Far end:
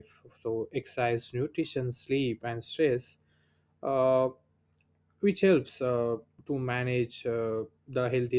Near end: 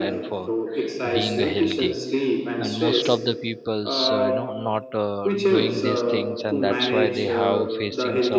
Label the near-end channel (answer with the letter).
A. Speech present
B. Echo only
A